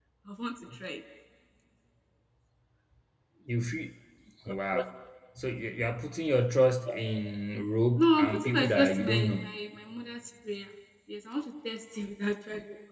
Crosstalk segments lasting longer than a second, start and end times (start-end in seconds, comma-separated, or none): 8.0-9.5